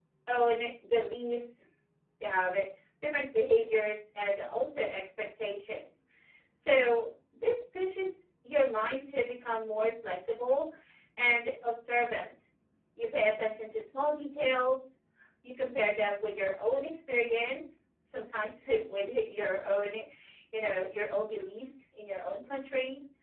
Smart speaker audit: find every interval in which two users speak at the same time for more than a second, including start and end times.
none

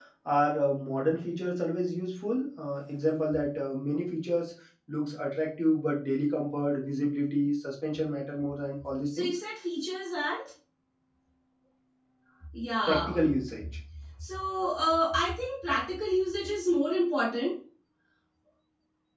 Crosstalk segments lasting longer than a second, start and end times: none

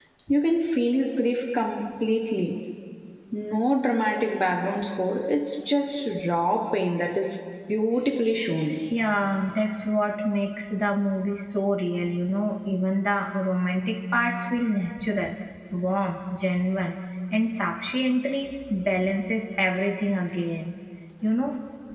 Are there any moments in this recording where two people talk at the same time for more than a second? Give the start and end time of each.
none

